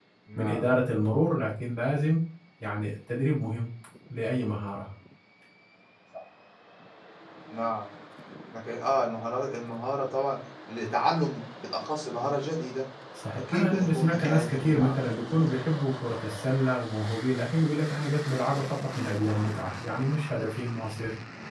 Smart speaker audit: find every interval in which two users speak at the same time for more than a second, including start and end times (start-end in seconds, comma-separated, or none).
13.3-15.2